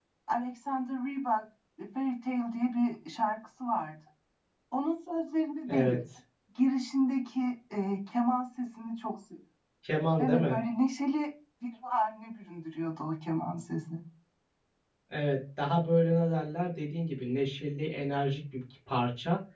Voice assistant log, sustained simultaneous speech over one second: none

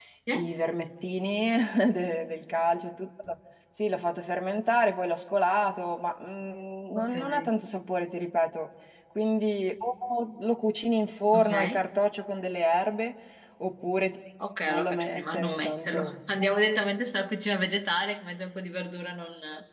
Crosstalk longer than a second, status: present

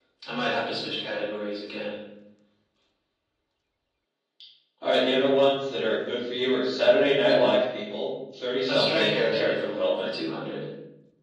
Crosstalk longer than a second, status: present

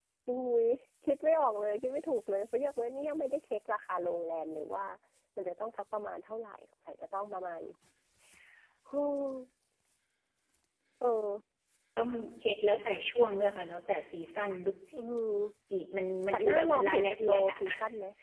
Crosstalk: present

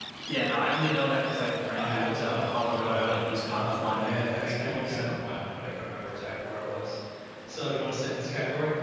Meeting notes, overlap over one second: present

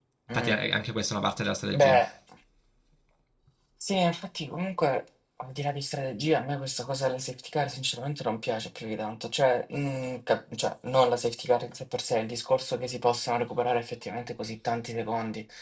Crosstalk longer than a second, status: none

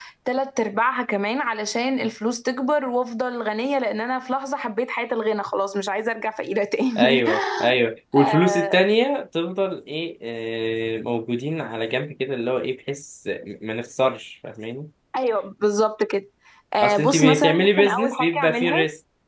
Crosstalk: present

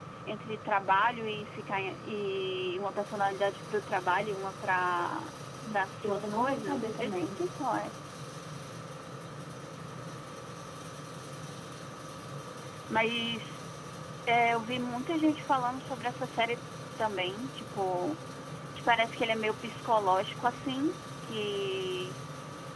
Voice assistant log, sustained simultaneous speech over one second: present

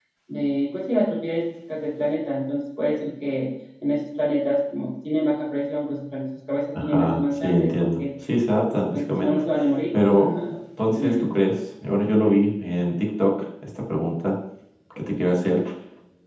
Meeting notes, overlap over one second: present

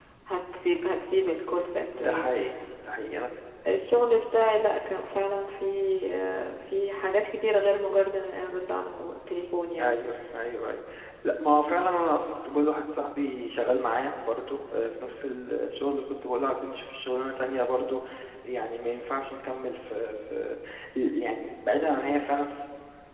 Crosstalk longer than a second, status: none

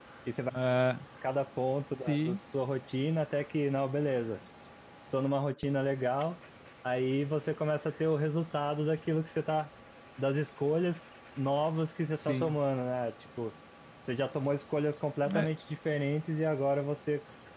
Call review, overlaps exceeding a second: none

